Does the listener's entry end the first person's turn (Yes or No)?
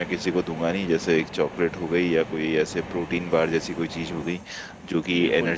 No